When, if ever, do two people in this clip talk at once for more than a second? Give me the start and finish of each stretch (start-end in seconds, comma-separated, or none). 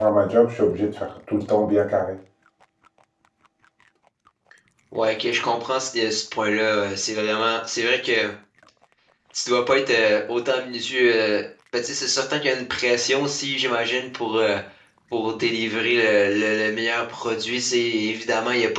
none